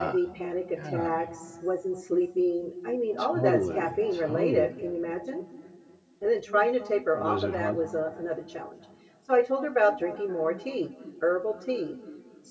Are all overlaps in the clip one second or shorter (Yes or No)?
No